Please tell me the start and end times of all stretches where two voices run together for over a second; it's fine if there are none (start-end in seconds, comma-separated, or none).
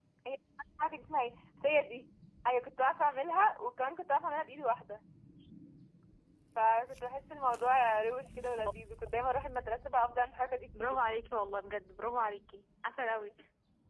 none